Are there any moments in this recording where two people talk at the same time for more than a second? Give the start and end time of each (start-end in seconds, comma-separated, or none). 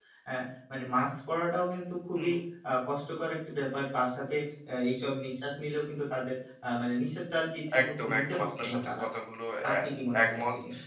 7.8-9.0